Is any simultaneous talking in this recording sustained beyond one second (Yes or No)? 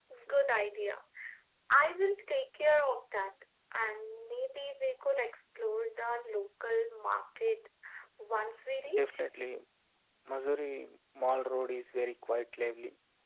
No